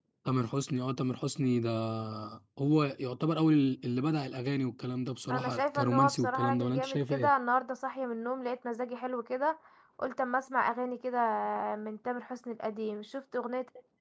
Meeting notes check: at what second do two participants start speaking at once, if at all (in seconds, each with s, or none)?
5.3 s